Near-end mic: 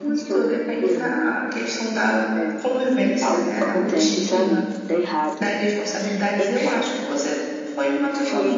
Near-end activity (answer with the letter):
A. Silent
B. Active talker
B